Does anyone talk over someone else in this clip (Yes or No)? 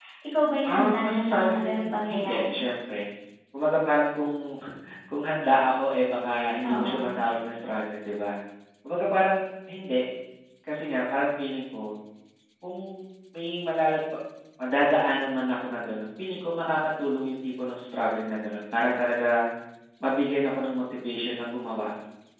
Yes